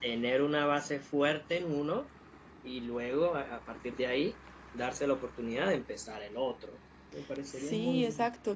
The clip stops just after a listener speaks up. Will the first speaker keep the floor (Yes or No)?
No